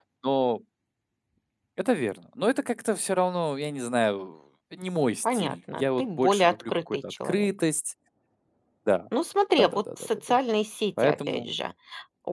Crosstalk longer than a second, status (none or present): present